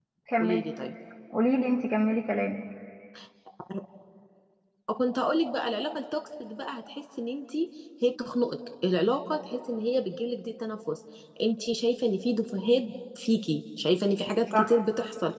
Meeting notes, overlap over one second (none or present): none